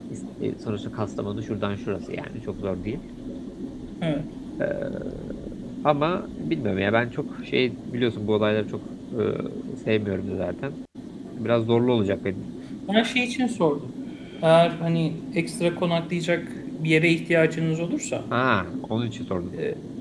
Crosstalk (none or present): none